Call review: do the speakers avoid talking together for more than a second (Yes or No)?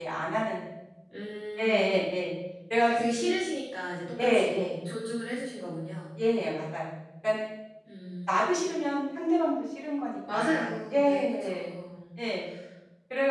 No